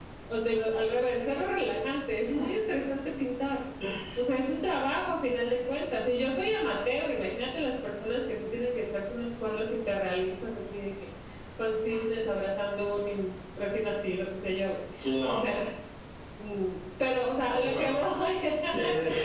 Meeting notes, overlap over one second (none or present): none